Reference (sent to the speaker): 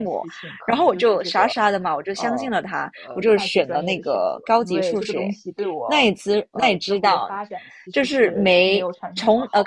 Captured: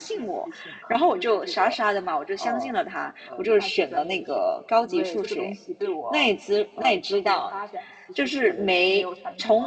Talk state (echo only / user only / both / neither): echo only